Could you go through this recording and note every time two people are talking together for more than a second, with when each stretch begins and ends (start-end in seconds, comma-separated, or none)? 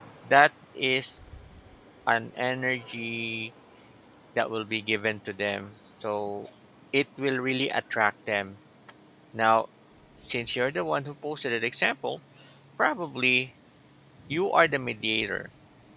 none